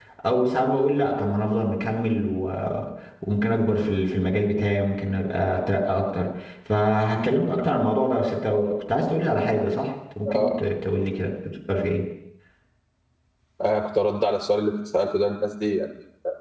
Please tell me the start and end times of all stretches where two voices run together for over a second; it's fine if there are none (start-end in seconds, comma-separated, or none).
none